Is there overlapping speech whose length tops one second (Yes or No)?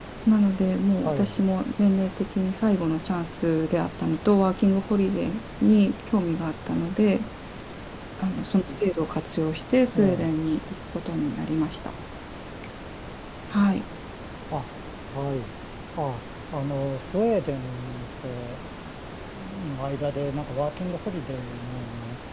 No